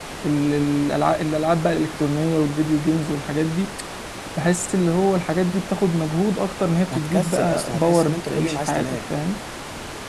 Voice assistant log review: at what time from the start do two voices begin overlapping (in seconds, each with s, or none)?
6.9 s